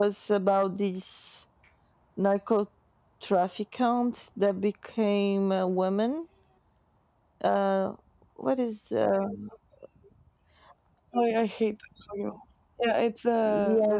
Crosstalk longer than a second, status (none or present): none